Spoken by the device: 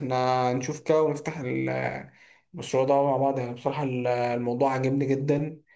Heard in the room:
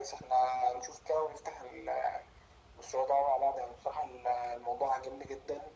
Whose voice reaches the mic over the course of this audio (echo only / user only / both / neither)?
echo only